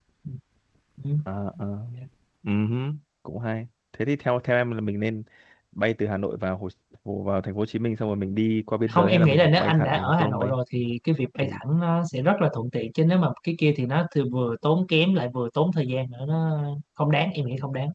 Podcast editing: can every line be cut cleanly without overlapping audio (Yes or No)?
No